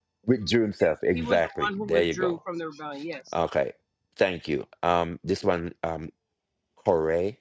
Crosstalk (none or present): present